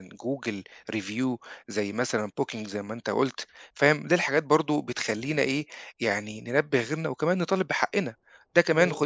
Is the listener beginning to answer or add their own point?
No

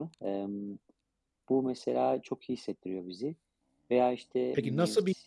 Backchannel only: No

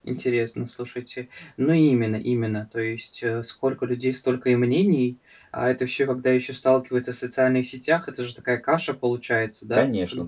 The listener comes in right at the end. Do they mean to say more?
Yes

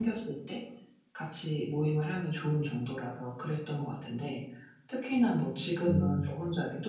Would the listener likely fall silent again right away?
Yes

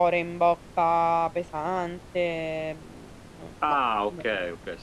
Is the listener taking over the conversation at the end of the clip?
Yes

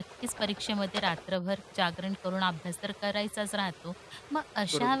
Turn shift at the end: No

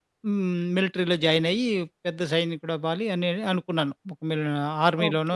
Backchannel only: No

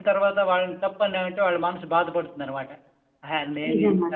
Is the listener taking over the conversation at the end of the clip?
No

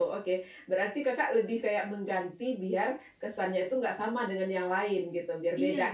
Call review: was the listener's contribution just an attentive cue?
No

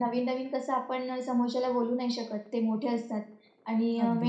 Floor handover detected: No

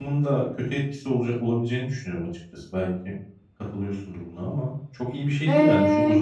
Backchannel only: No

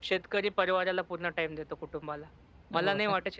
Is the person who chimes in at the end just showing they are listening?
Yes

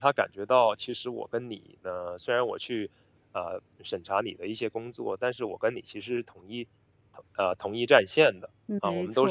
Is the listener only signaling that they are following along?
Yes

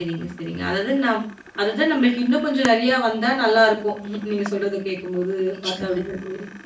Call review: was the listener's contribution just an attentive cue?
Yes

